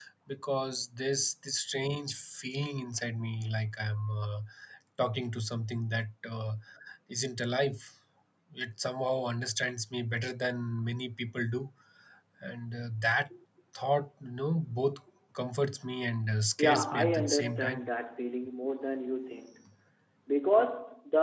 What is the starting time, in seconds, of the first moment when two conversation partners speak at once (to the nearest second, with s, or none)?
17 s